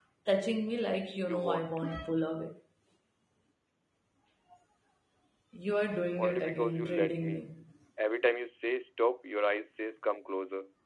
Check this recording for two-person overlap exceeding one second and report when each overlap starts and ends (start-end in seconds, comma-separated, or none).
6.2-7.5